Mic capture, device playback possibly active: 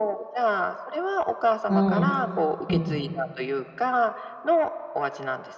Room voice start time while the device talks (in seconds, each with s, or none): 1.7 s